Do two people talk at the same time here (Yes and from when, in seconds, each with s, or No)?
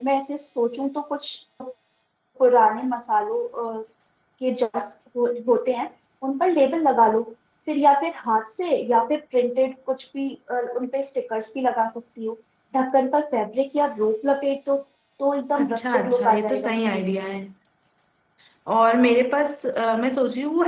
Yes, from 15.6 s